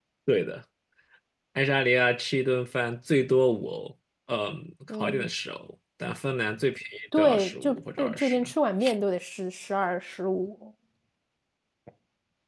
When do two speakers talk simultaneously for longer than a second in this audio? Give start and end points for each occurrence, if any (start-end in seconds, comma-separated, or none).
7.2-8.4